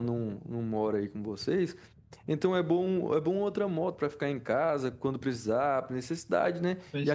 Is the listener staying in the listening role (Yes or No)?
Yes